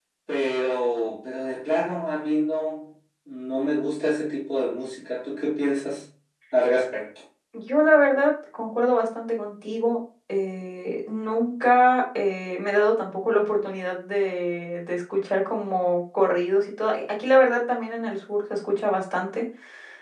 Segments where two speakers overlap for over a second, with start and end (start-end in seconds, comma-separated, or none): none